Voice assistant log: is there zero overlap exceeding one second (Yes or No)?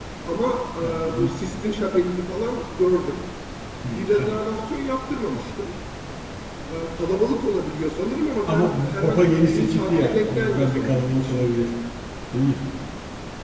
No